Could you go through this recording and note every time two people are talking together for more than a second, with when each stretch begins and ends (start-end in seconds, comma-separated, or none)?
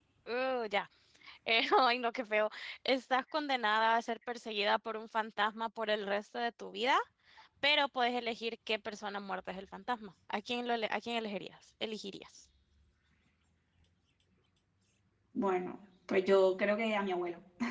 none